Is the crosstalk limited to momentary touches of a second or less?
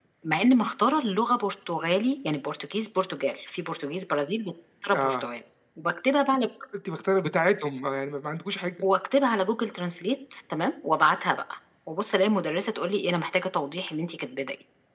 Yes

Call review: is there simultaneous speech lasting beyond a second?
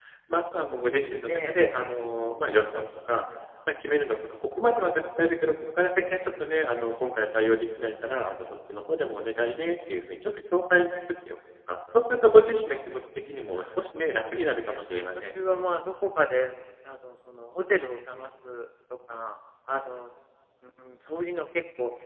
Yes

